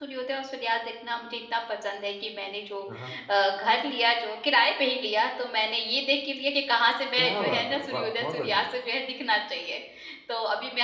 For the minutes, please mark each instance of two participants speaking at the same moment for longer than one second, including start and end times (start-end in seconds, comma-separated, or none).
7.2-8.7